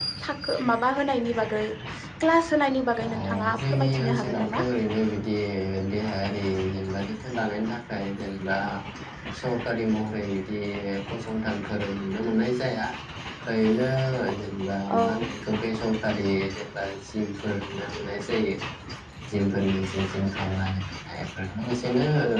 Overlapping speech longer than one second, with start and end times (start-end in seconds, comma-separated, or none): 3.0-4.6